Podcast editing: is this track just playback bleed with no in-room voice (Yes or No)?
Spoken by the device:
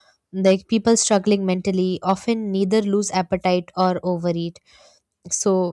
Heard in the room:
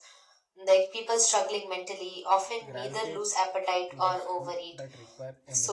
No